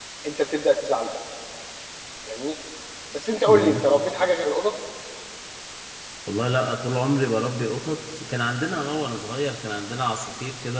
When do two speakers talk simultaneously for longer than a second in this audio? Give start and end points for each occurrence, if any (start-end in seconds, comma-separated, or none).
none